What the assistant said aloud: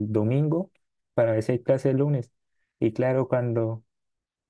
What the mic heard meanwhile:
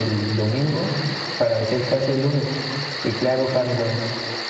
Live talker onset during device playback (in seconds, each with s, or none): none